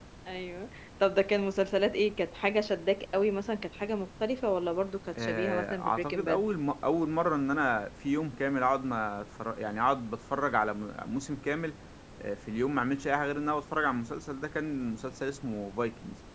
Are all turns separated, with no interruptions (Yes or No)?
No